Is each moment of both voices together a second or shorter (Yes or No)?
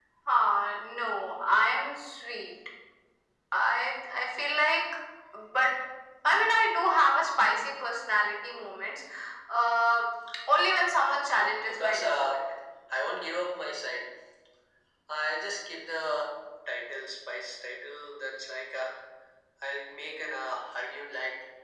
No